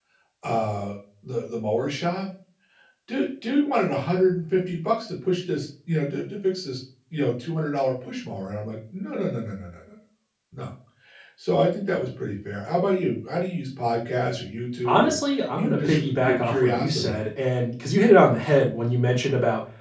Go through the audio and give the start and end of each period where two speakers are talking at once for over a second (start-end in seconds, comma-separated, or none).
15.6-17.2